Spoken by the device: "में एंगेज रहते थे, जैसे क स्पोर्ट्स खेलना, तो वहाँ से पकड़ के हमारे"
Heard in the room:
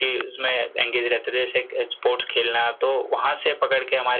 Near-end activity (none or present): none